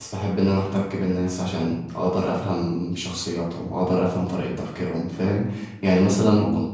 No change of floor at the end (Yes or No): Yes